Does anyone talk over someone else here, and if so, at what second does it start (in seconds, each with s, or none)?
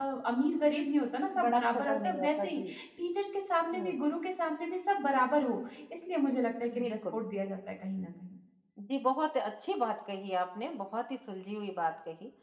1.4 s